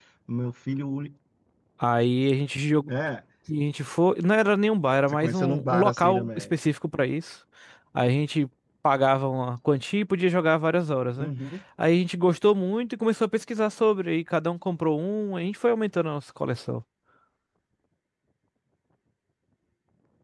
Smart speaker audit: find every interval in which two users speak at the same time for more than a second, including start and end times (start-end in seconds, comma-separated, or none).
5.1-6.6